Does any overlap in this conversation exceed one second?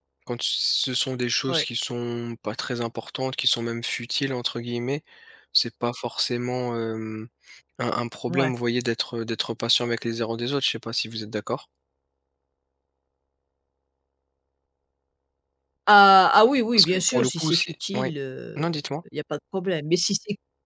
Yes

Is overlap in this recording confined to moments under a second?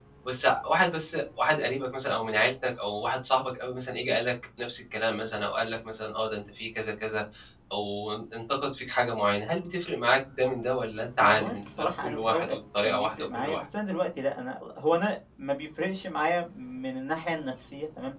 No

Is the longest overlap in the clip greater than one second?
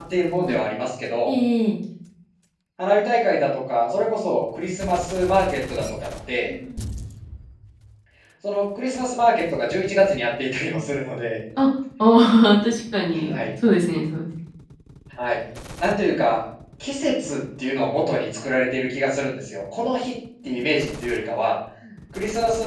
No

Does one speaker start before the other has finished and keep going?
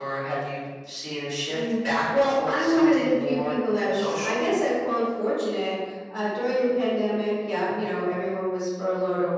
Yes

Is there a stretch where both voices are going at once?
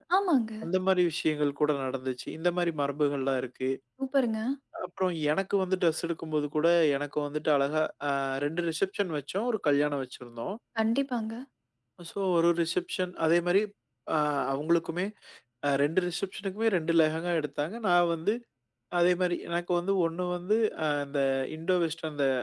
No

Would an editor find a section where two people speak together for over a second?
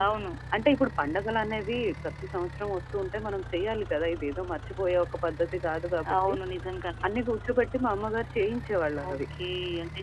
No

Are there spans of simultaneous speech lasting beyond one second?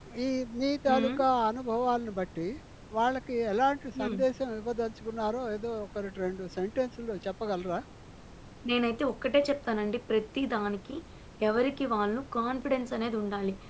No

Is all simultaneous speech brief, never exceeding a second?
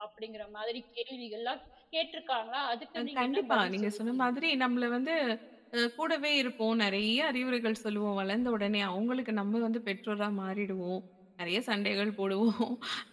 No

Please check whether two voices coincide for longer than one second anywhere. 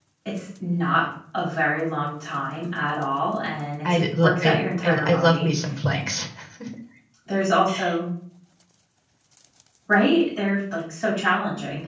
Yes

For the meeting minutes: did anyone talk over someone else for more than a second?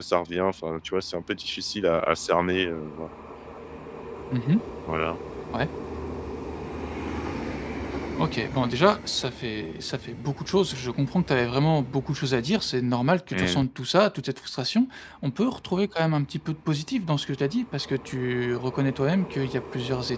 No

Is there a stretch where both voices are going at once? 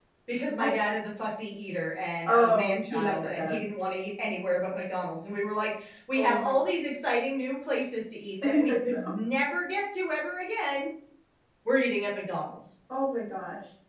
Yes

